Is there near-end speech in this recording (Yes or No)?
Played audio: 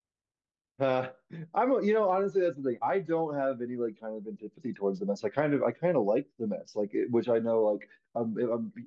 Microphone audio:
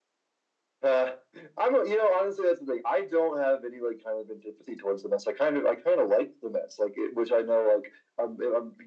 No